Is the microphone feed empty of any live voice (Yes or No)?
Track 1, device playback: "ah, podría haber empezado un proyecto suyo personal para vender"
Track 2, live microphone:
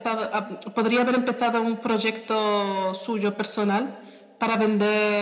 Yes